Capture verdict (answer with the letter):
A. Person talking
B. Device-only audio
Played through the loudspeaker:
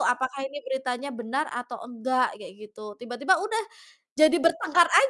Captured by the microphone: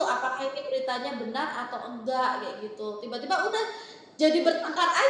B